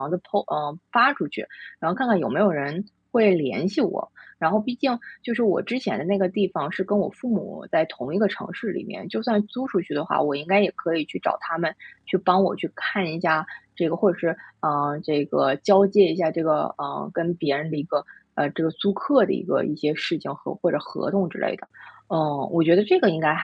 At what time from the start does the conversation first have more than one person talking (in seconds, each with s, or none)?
none